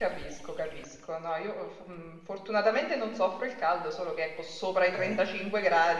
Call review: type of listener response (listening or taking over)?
listening